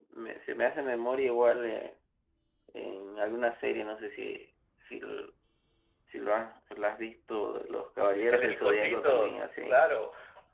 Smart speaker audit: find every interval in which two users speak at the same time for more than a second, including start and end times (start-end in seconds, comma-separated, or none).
8.3-9.7